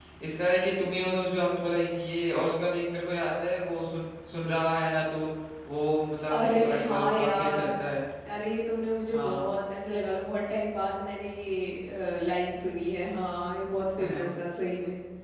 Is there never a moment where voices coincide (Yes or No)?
No